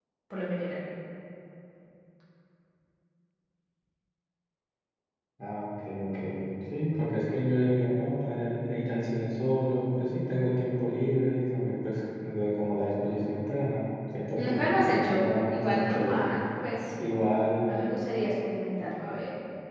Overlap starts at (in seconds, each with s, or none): 14.4 s